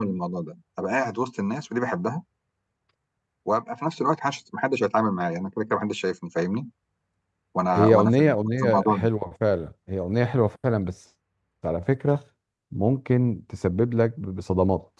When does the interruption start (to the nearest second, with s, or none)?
8 s